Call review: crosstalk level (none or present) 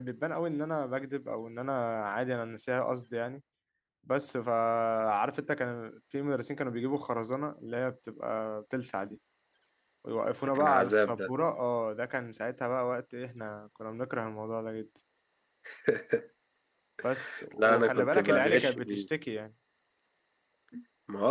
present